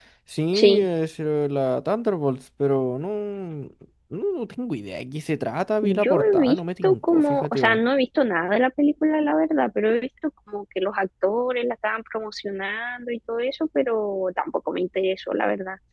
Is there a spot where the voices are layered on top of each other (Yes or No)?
Yes